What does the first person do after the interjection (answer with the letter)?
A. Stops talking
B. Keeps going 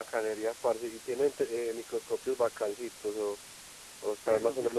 A